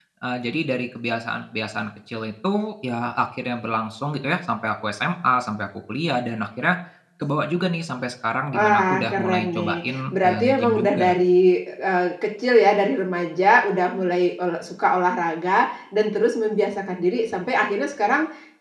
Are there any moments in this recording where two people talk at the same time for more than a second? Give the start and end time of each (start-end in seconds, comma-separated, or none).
8.5-11.2